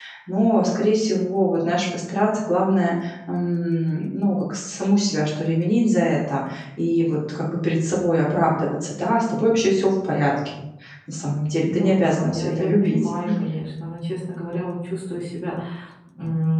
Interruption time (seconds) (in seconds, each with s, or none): 11.7 s